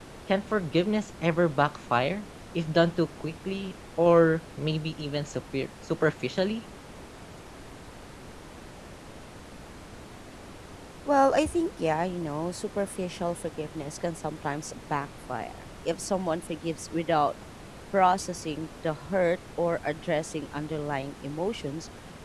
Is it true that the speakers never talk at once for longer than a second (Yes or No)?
Yes